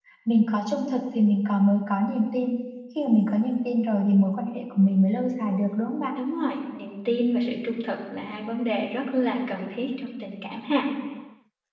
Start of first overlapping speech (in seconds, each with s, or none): none